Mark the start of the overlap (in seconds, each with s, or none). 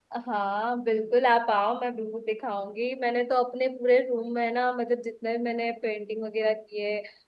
none